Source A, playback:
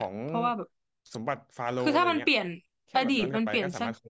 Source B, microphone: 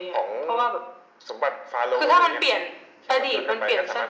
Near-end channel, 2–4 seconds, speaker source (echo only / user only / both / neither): echo only